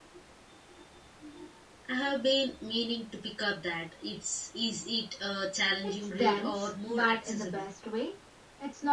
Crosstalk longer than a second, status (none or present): present